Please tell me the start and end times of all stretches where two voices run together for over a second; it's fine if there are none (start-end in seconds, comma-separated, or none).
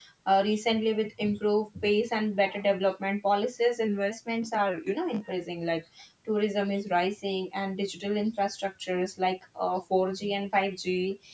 none